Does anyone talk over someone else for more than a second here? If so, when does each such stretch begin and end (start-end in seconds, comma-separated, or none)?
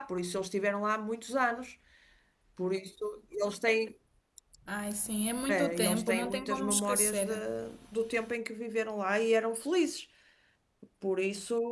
5.5-7.4